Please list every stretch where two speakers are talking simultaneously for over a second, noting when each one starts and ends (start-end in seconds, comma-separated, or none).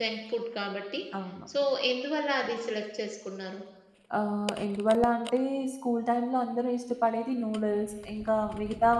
none